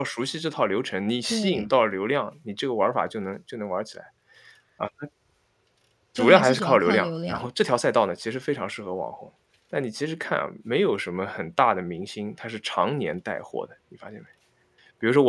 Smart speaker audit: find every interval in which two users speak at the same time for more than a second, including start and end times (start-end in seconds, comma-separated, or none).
6.2-7.5